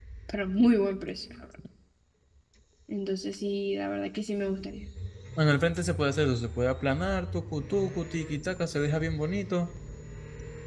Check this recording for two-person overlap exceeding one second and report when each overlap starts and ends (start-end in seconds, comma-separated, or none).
none